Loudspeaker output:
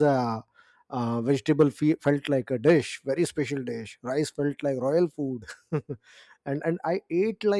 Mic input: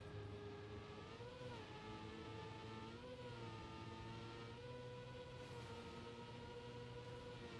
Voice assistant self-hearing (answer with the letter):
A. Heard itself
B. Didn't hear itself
B